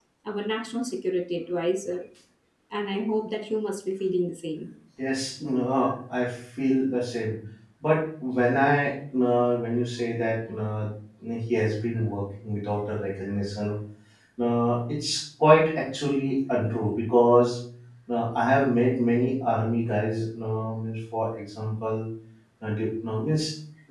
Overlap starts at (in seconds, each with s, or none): none